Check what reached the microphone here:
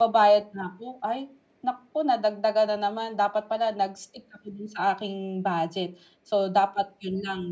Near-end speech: present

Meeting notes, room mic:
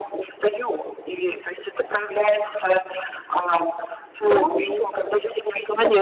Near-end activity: present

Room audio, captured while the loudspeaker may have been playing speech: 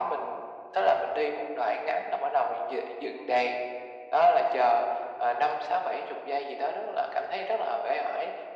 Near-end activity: none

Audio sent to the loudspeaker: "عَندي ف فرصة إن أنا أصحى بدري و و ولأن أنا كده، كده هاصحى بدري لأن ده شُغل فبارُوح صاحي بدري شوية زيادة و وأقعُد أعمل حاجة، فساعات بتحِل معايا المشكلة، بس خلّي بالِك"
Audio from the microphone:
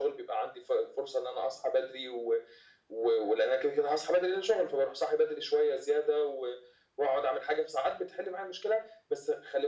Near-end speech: none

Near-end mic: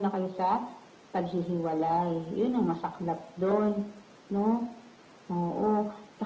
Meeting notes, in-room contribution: none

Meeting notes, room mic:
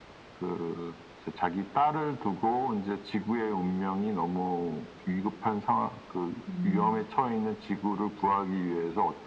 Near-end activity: present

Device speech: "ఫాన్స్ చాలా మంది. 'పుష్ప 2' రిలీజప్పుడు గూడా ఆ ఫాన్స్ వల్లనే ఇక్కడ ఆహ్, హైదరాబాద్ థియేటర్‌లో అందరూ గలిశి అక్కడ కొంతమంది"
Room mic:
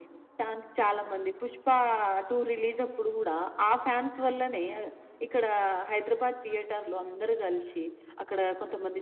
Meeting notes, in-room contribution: none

